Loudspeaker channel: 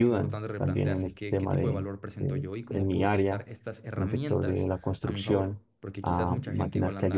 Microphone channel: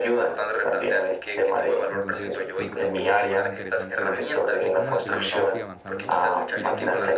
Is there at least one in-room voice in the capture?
Yes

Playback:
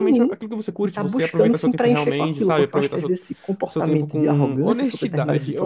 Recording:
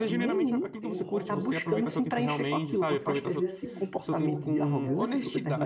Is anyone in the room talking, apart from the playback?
Yes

